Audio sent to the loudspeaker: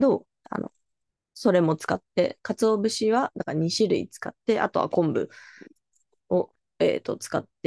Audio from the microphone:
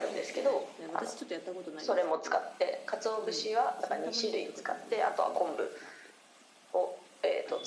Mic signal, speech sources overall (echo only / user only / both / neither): both